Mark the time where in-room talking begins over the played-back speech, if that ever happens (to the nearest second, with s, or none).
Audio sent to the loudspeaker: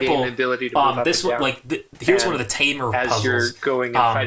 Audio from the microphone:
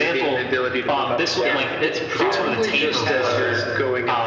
1 s